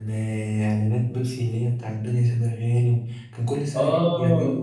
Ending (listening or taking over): taking over